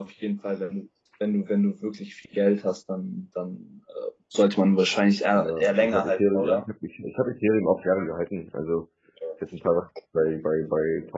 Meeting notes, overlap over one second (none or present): present